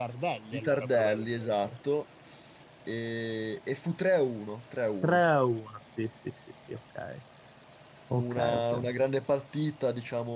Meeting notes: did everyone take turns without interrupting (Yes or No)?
No